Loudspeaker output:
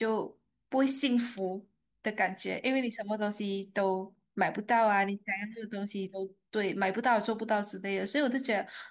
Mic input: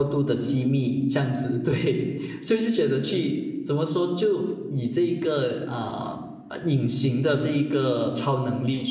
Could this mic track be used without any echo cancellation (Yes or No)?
Yes